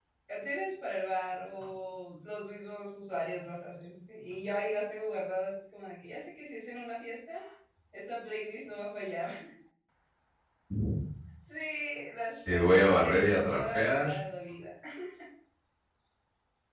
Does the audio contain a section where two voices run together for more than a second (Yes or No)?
Yes